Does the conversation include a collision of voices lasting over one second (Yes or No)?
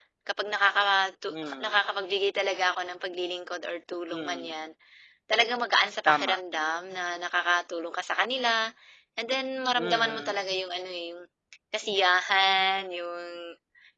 No